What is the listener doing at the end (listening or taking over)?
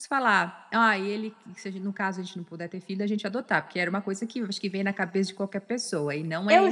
taking over